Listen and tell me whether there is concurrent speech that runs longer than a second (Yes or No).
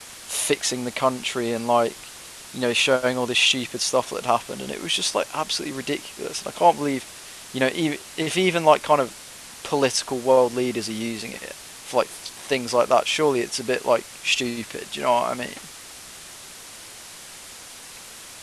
No